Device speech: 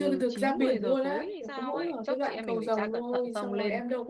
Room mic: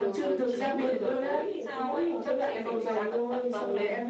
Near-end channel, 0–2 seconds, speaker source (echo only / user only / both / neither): echo only